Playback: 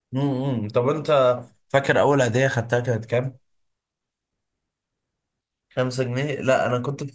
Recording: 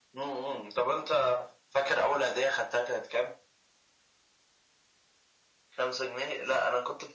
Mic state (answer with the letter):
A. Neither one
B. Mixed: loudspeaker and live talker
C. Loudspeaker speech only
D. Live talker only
C